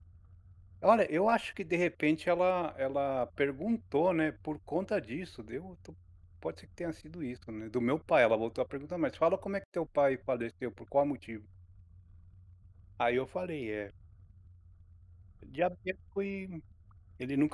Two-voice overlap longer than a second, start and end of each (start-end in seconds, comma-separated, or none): none